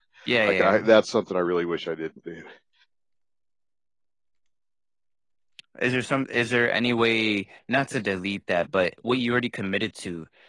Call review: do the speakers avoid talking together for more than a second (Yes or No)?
Yes